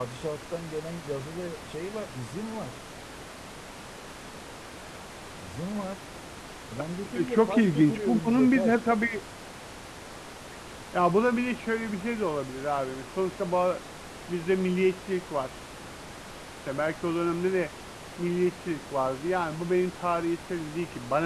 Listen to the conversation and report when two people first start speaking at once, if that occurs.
7 s

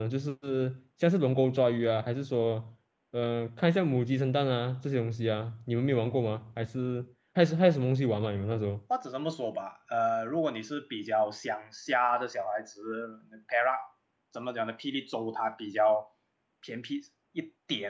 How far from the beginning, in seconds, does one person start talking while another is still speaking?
none

